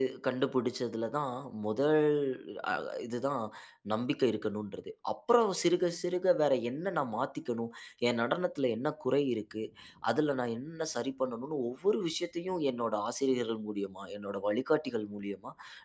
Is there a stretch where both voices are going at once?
No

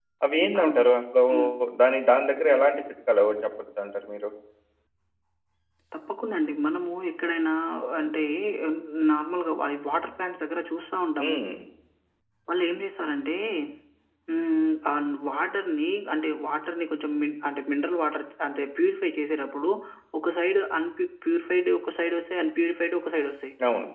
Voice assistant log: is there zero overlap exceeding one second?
Yes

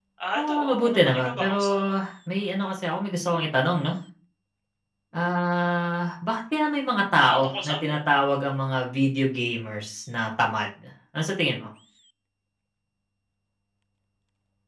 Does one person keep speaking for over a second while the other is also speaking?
Yes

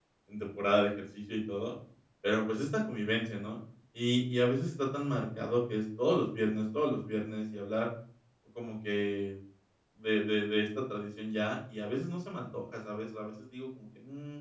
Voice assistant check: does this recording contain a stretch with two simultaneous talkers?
No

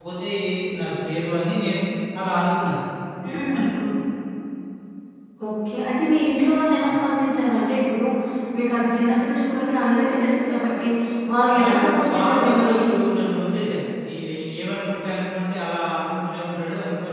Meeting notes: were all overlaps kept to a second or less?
No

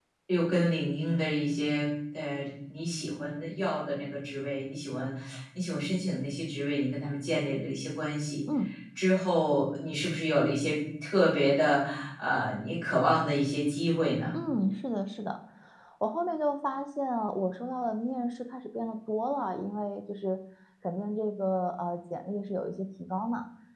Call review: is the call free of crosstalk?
Yes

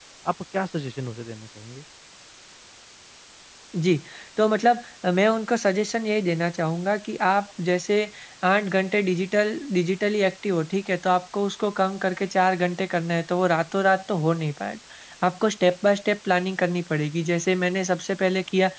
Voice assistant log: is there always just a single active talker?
Yes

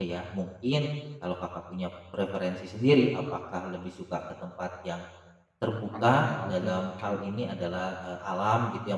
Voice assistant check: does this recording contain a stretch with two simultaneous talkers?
Yes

